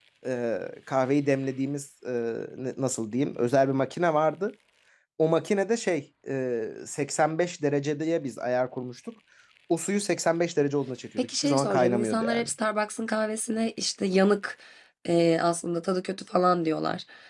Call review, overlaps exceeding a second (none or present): present